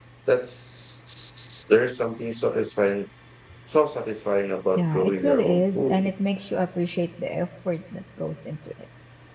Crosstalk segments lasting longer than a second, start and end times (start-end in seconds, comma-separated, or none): 4.7-6.1